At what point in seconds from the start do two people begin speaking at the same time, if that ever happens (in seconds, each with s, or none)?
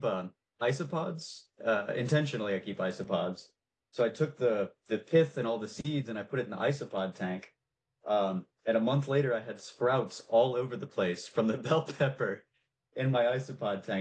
none